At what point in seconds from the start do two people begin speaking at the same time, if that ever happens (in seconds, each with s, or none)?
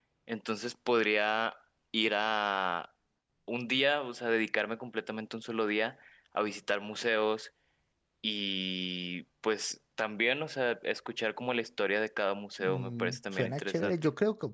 12.6 s